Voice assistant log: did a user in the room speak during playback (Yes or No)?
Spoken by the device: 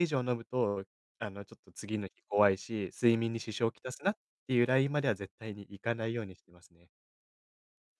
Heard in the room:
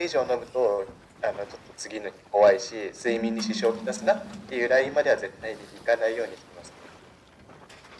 Yes